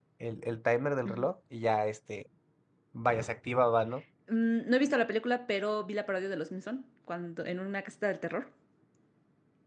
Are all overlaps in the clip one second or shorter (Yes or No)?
Yes